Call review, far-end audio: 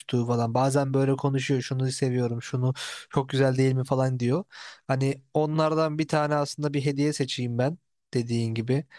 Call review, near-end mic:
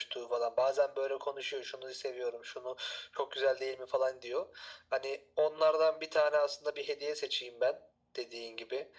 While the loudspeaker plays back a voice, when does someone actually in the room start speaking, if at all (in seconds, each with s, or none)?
none